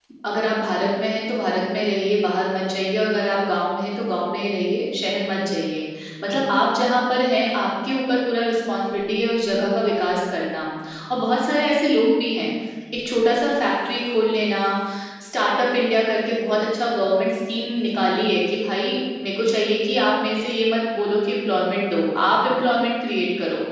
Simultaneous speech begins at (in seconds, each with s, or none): none